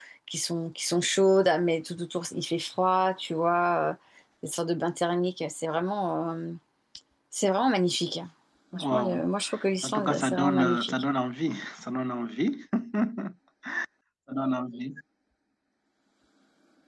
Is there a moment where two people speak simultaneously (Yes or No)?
Yes